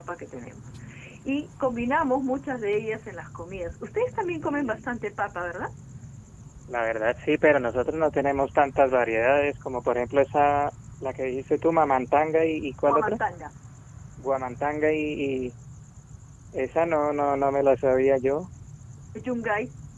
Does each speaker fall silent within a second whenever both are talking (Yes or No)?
Yes